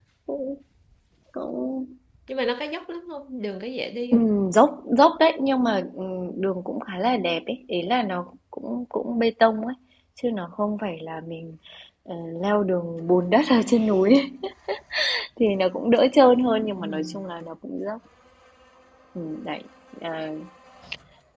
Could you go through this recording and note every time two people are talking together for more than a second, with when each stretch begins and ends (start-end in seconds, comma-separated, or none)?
none